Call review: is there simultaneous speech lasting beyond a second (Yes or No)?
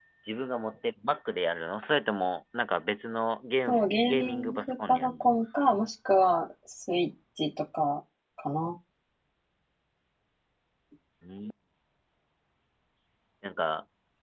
Yes